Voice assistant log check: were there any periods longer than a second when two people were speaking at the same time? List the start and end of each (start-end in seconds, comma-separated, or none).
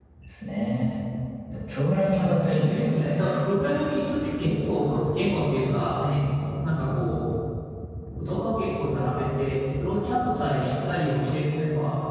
2.1-3.4